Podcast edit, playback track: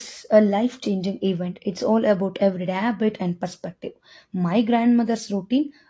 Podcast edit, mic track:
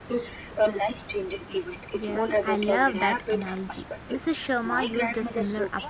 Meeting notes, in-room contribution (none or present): present